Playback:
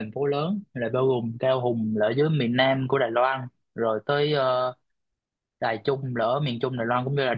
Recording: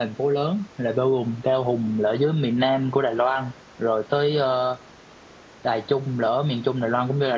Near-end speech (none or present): none